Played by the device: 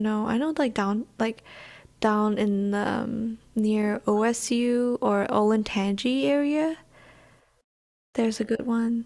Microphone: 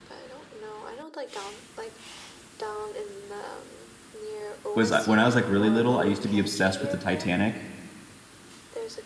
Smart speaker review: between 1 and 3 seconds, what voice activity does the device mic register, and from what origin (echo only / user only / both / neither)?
echo only